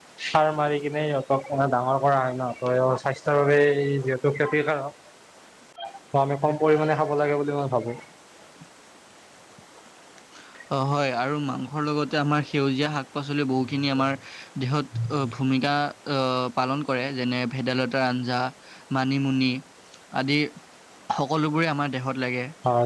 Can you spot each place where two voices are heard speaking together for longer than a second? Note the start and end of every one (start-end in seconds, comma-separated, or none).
none